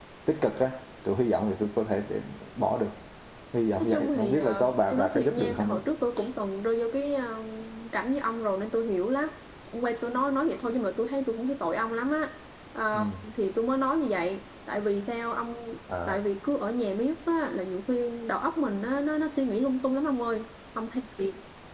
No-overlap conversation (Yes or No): No